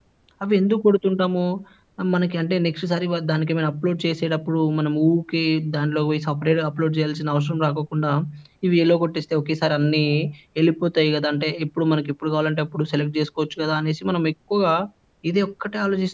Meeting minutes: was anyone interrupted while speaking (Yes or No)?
No